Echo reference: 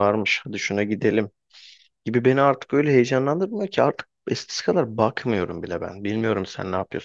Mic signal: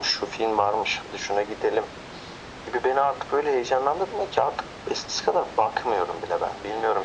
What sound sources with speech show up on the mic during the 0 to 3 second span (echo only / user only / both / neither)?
echo only